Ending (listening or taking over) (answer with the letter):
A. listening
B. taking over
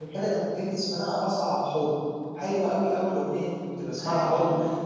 A